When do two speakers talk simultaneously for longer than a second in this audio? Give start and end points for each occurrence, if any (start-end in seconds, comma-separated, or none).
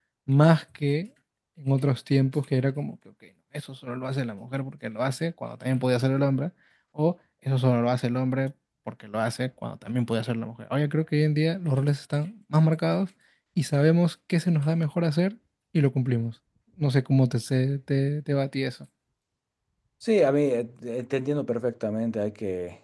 none